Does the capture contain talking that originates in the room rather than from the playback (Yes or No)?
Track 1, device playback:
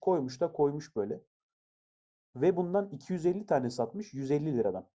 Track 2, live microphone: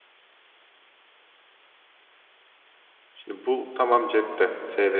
Yes